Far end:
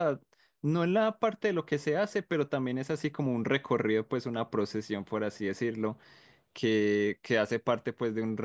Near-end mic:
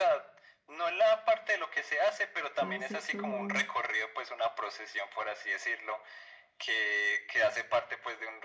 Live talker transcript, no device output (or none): Debe ser todo